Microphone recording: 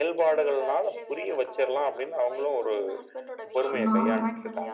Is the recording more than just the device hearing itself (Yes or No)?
Yes